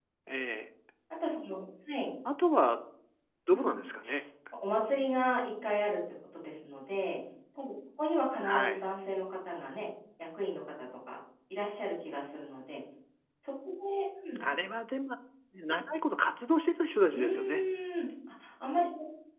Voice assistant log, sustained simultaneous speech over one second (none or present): none